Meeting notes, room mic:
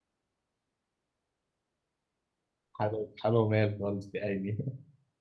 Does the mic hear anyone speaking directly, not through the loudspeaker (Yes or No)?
Yes